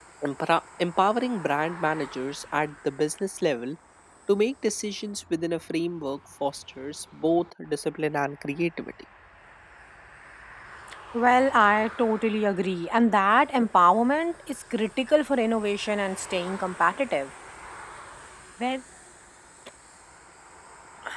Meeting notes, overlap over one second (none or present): none